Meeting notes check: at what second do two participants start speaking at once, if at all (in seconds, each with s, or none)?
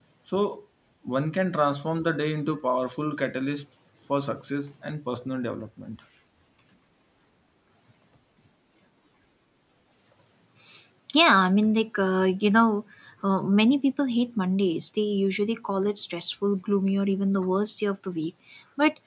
none